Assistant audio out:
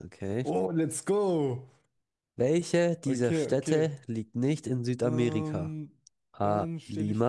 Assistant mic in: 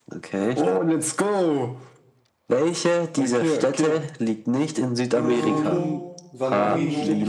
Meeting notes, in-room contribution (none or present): present